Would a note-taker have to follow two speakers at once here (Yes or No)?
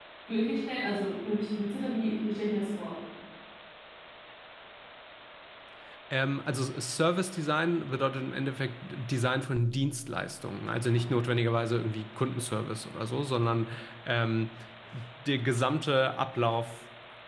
No